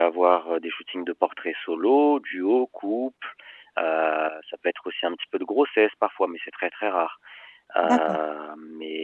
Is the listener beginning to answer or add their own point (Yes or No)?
No